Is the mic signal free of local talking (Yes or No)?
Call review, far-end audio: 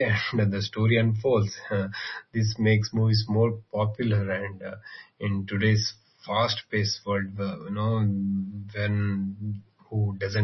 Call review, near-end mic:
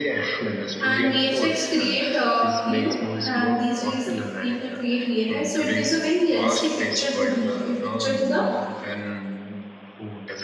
No